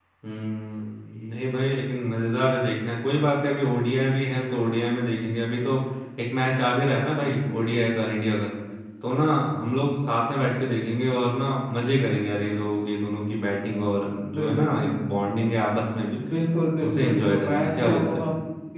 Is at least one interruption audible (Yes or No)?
Yes